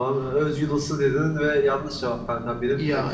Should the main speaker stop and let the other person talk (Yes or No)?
No